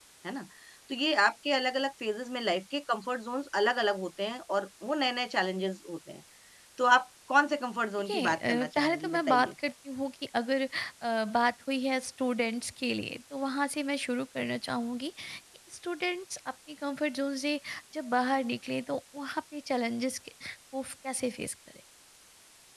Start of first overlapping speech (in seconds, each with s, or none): 8.1 s